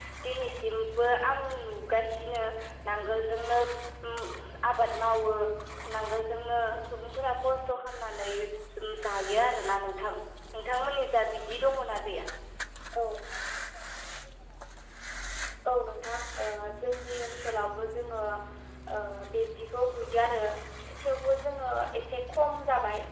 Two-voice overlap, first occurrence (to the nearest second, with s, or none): none